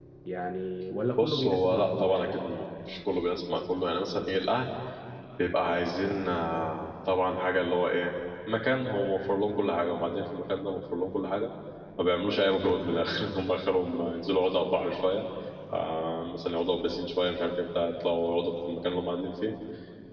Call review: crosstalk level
present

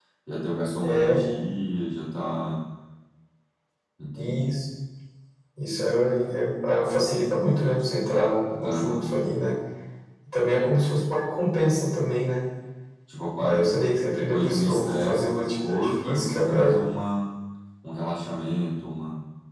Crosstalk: present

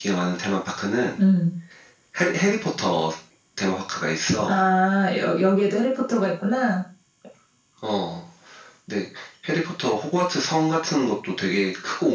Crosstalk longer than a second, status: none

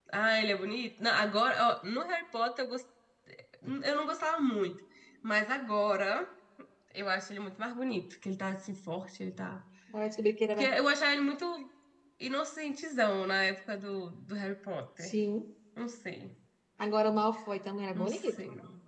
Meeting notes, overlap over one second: none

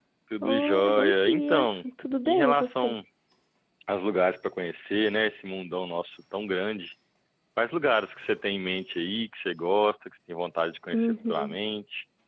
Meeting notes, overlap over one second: present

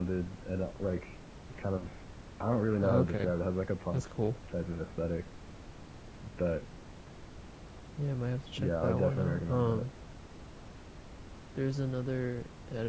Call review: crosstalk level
present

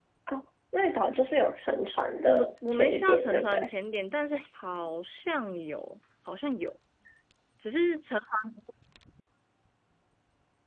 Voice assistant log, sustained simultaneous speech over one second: present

